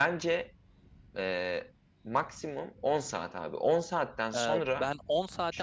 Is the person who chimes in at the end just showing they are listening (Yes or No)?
No